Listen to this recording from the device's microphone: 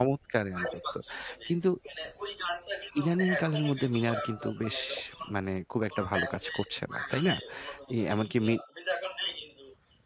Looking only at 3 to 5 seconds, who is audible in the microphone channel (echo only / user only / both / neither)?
both